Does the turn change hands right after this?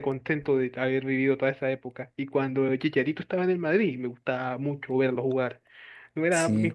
No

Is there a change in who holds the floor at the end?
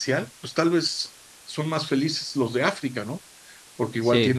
No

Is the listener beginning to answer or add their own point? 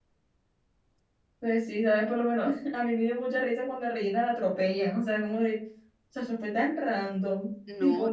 No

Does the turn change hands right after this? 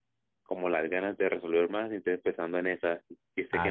Yes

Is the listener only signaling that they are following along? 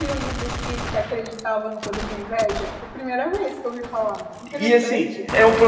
No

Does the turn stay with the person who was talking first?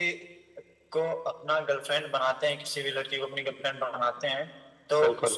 Yes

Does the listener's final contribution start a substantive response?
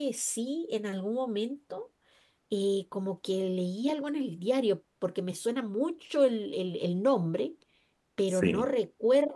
No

